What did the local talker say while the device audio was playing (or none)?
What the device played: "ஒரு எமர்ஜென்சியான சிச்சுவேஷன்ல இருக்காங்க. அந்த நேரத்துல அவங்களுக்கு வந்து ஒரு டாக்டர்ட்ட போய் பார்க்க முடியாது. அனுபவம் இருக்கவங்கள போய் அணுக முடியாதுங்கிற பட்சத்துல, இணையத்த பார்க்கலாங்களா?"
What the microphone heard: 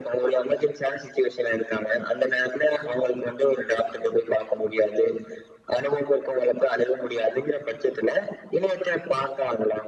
none